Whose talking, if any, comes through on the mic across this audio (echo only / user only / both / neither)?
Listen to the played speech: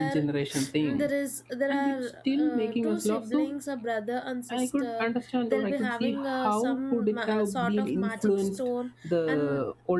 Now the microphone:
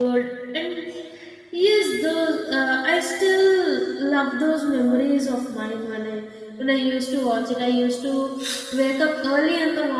user only